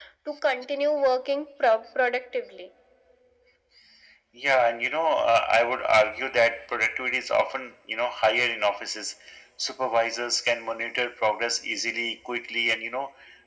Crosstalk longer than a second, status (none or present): none